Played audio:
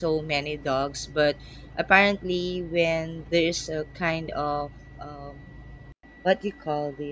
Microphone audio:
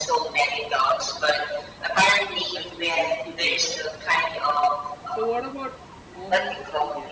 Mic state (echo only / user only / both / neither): both